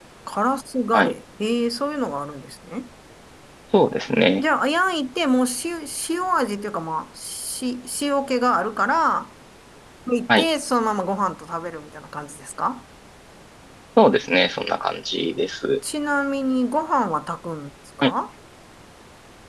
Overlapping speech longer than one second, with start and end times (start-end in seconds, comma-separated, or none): none